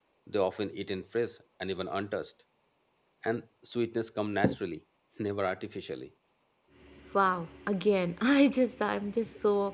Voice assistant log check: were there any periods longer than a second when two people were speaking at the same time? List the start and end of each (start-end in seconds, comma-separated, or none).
none